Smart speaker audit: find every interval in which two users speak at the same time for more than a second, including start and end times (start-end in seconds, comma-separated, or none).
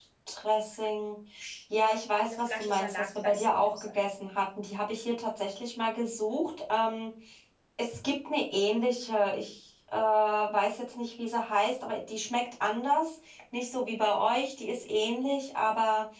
2.2-4.1